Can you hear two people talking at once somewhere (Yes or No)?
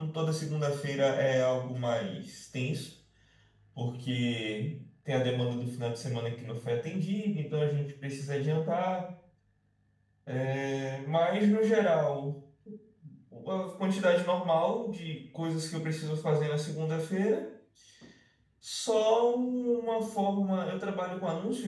No